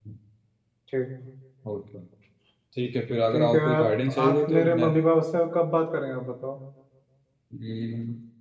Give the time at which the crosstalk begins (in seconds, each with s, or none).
3.3 s